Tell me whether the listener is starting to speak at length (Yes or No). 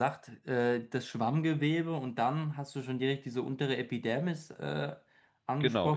Yes